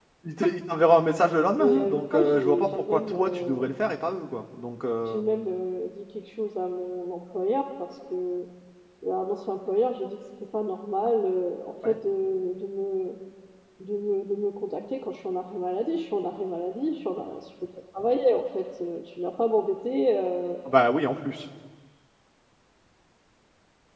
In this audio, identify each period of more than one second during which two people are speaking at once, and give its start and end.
1.6-3.7

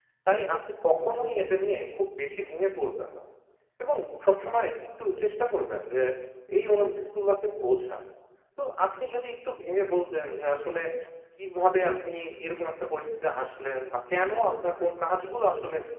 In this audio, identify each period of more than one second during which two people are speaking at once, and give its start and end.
none

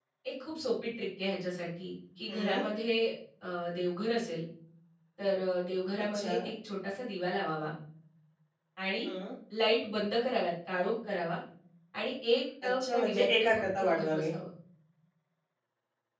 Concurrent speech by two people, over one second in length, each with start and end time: 12.8-14.3

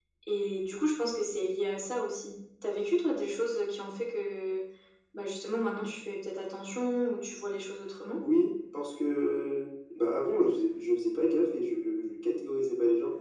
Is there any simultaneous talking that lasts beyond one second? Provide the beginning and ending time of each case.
none

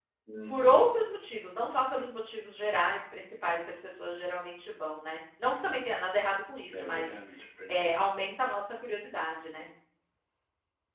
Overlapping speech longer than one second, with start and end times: none

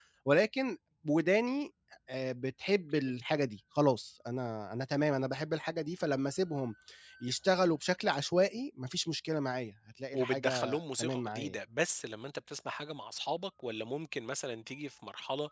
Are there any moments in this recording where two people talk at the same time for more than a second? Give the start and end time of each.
10.1-11.5

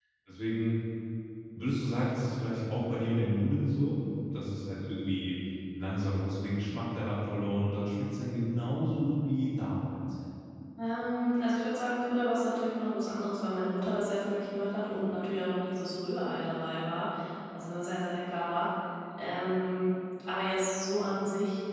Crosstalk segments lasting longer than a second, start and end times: none

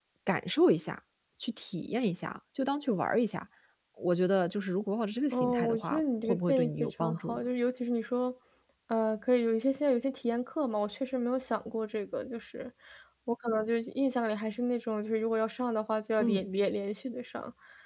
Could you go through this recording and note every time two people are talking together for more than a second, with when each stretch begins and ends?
5.3-7.4

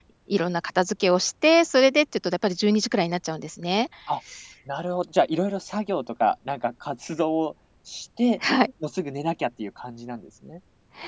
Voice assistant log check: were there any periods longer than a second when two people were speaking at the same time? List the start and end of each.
none

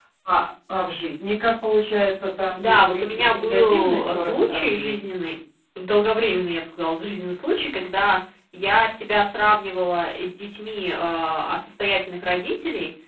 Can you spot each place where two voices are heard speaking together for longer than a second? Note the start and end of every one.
2.6-5.0

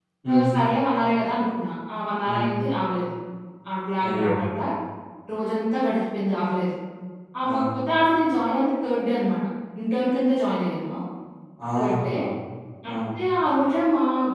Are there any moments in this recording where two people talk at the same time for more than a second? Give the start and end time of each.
none

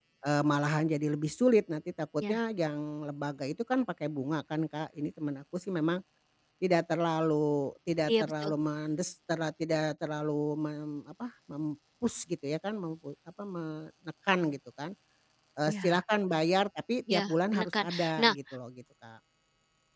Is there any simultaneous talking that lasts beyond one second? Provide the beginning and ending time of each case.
17.1-18.4

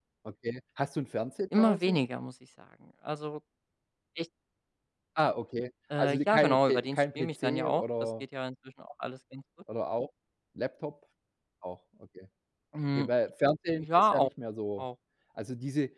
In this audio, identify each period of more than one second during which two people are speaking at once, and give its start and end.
6.0-8.1

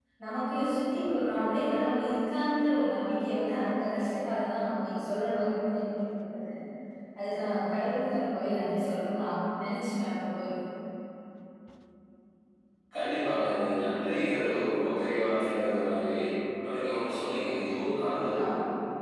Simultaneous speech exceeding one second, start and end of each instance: none

